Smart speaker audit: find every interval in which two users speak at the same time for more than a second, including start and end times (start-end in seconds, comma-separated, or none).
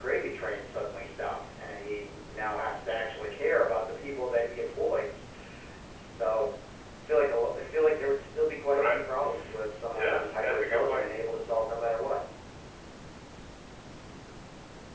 9.9-11.1